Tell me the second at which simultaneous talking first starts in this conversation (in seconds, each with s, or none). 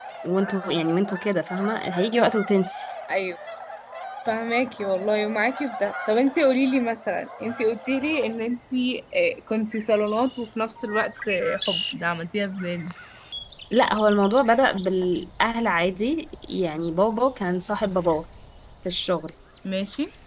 none